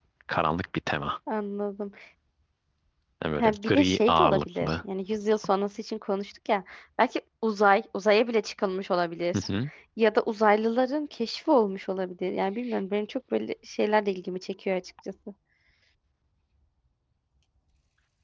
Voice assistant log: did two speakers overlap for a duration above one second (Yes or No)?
Yes